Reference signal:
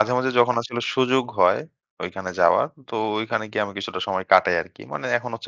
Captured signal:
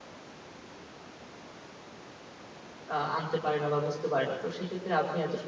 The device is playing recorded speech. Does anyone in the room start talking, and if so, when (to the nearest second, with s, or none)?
3 s